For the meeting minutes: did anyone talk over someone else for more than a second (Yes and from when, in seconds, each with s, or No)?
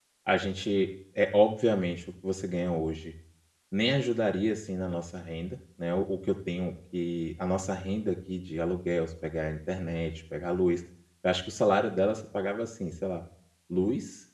No